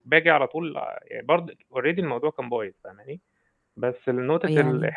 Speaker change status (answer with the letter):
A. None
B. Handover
A